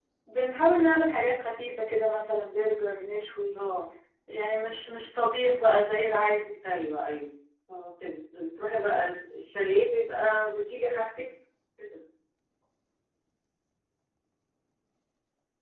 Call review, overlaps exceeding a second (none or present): none